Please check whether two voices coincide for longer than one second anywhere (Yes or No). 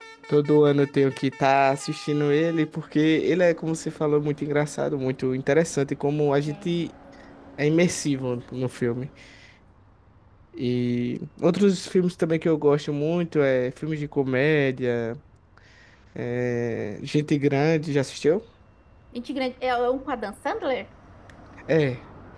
No